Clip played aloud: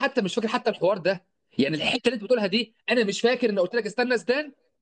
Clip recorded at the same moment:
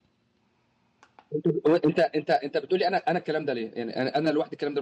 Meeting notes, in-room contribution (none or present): present